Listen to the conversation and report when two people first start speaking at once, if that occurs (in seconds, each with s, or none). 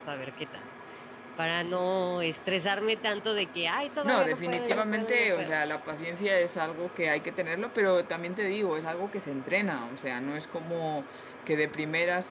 4.0 s